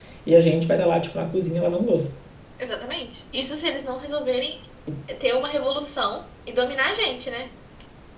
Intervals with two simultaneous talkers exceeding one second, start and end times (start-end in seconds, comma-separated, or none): none